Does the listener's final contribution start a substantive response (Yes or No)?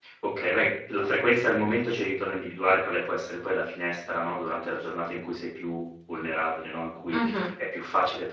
No